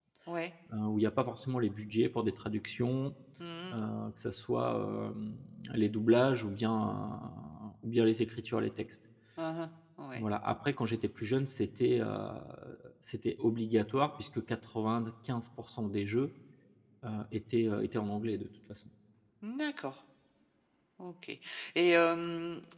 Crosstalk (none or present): none